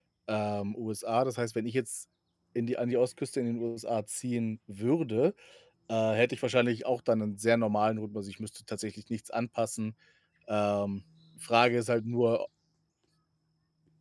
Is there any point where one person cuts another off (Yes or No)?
No